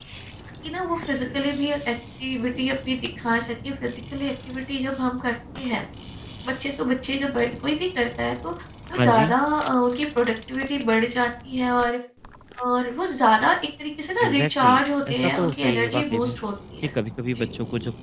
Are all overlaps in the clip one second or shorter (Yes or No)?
No